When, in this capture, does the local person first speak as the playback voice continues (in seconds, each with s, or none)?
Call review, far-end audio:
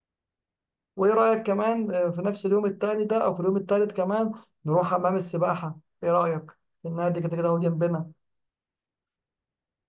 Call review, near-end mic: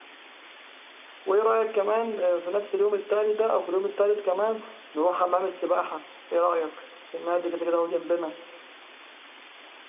none